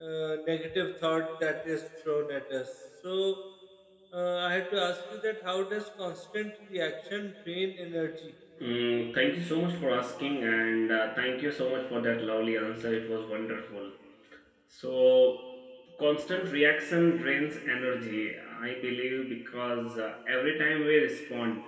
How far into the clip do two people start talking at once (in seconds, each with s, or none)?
none